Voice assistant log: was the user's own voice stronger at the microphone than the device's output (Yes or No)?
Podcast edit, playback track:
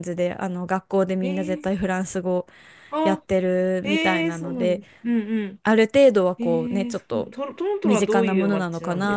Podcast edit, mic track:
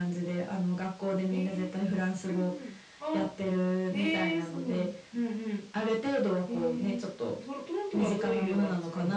No